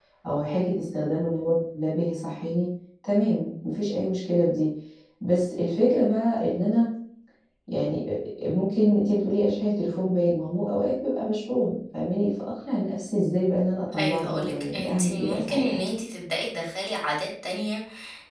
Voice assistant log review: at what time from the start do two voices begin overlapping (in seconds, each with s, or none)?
13.9 s